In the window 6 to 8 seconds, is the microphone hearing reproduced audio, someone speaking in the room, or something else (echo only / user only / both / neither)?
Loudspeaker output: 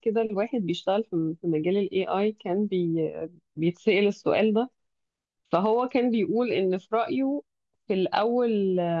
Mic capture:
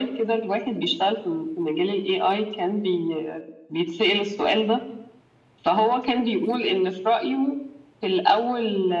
echo only